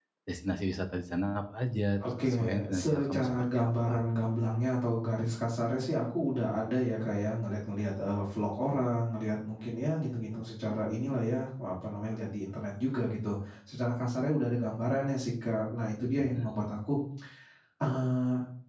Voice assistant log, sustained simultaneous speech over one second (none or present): present